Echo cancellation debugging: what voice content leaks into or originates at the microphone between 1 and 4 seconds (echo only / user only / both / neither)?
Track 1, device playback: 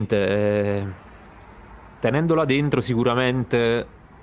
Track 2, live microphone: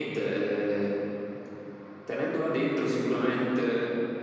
echo only